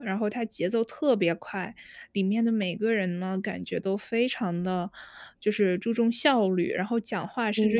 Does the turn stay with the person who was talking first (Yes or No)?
Yes